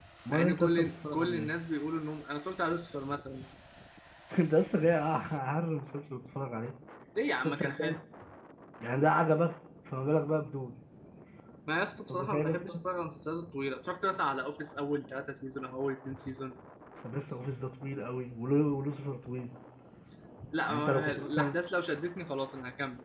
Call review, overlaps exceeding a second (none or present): present